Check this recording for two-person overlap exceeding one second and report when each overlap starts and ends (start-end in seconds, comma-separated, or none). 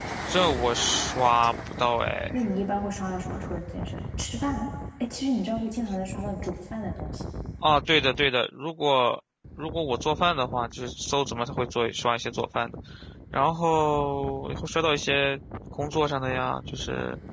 none